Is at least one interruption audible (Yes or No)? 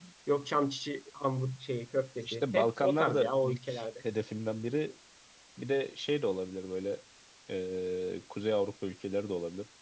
Yes